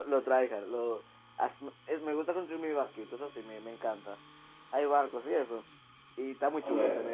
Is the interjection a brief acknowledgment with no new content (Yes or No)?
No